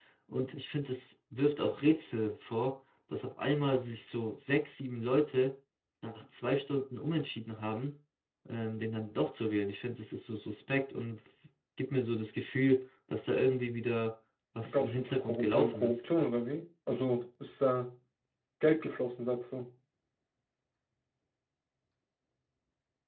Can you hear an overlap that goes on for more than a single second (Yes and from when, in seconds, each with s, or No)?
Yes, from 14.6 s